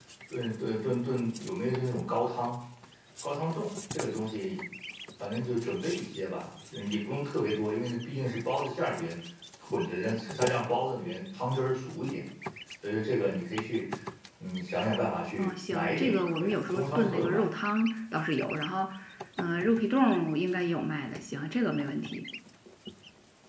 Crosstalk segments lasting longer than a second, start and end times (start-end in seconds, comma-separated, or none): 15.4-17.5